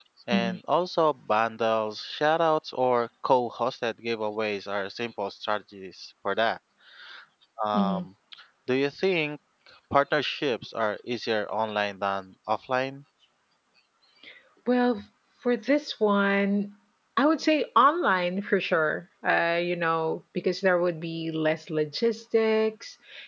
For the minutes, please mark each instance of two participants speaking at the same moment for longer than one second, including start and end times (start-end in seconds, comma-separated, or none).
none